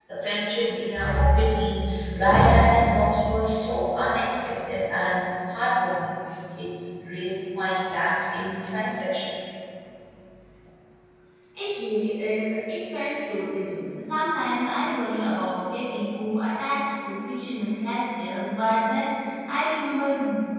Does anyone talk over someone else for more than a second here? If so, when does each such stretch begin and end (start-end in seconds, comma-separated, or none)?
none